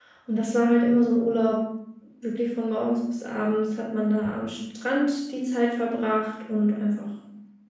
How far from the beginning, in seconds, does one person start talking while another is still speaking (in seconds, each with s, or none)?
none